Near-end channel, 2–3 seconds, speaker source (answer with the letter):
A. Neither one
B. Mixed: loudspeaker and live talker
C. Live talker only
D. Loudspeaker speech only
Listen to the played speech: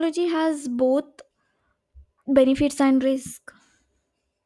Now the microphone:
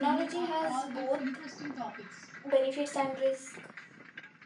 B